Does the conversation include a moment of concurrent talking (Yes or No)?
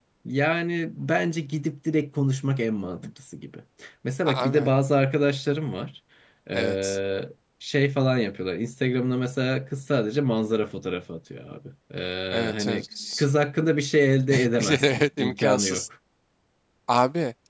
Yes